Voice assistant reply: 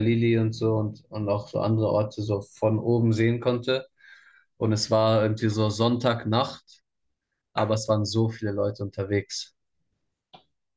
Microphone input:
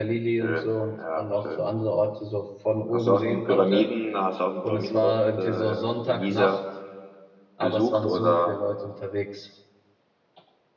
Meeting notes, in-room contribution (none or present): present